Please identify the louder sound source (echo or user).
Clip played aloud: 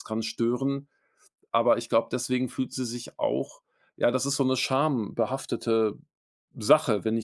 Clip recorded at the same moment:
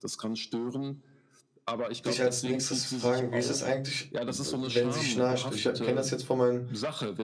user